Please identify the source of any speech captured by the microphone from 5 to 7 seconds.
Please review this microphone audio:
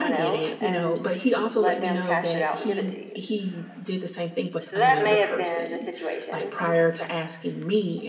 both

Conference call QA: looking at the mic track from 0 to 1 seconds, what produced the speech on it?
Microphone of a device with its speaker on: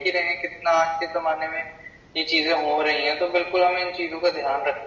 echo only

